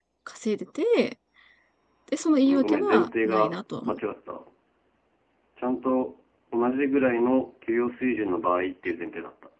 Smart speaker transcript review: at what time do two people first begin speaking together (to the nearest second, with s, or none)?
2 s